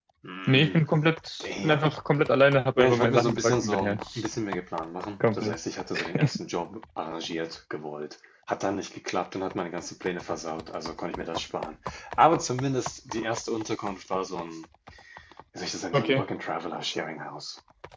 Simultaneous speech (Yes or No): Yes